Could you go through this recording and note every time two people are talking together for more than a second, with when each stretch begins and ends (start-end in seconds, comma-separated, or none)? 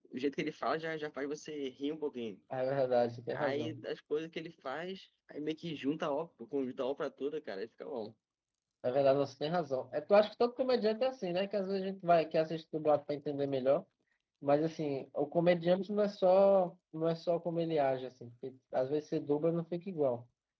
none